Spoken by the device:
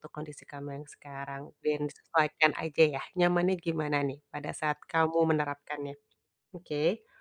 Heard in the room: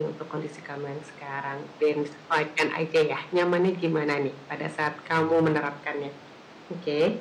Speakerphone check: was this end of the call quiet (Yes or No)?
No